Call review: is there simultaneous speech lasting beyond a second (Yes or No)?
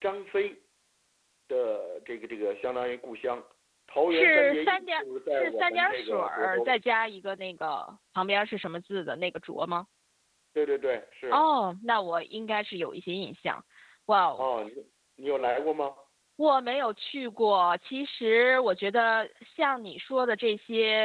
Yes